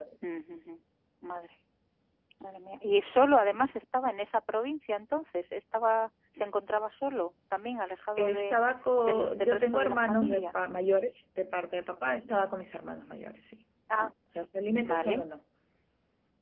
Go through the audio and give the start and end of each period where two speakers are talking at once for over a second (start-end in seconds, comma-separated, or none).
9.0-10.5